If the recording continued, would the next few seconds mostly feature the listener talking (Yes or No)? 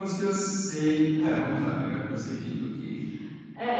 Yes